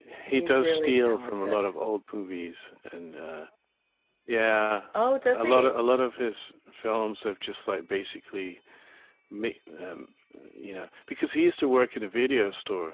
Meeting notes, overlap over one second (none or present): present